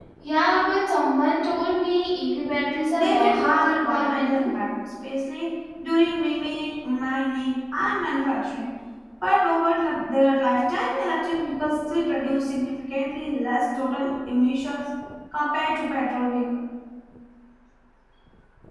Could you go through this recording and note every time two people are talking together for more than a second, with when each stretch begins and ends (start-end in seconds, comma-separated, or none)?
3.0-4.5